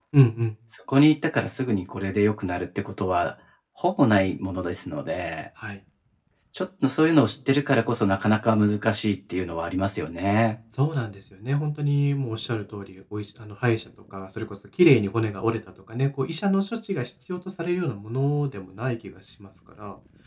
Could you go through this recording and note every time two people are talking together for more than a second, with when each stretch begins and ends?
none

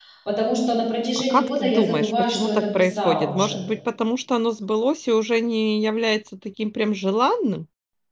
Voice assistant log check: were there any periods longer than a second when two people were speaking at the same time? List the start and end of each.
1.3-3.6

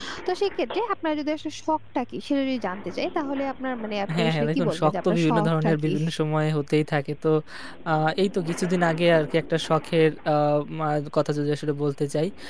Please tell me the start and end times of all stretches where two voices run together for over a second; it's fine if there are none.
4.2-5.9

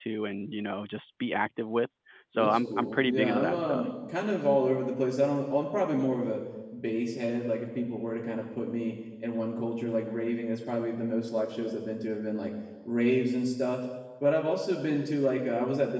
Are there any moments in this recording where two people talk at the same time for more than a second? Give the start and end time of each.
2.3-3.9

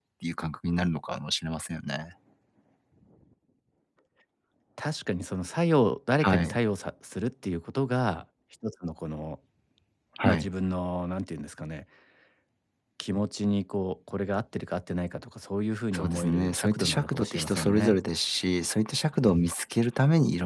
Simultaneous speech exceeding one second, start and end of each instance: 15.9-18.0

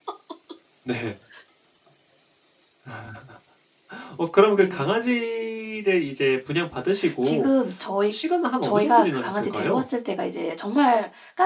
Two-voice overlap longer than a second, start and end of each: 8.6-9.8

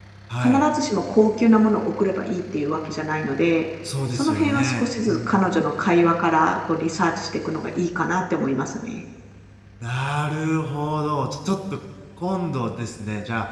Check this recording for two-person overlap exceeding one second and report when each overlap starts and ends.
4.1-5.5

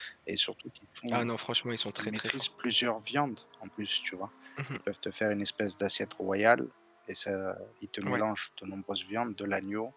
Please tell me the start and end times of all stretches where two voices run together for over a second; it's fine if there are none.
none

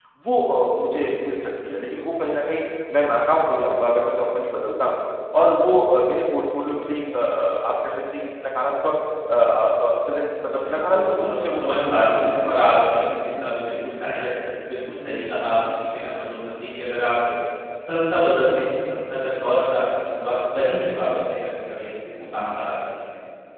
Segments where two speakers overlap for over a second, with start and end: 10.6-12.5

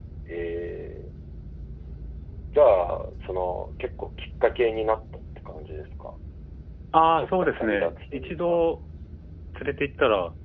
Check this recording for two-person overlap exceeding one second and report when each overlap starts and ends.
7.0-8.6

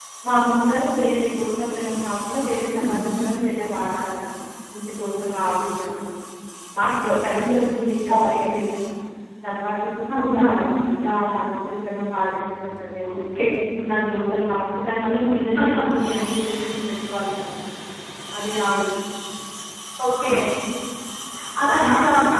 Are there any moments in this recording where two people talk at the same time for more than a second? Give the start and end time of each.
none

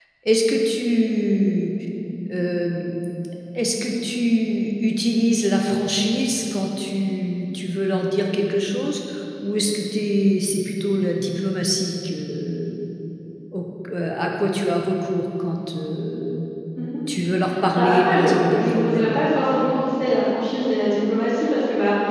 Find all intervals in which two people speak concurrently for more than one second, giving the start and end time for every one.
17.7-19.1

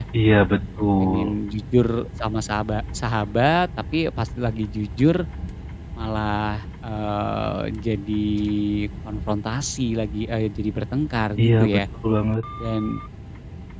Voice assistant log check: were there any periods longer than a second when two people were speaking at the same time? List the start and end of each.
none

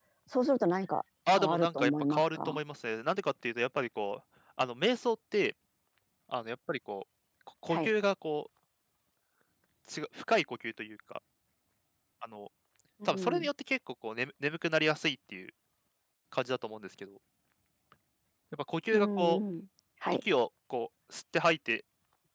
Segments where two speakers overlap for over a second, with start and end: 1.3-2.6

